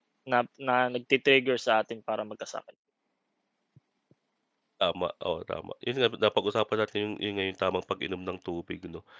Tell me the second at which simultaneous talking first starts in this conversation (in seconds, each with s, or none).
none